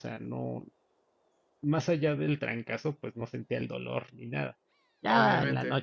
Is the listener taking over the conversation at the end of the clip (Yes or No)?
Yes